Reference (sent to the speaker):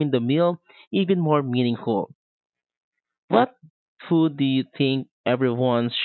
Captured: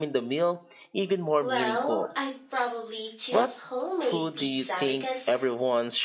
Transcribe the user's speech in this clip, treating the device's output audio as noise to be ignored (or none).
Well, I'd probably choose homemade pizza because